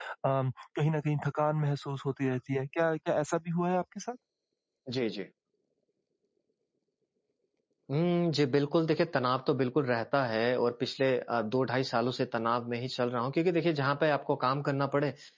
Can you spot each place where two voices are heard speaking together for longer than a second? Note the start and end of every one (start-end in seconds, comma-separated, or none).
none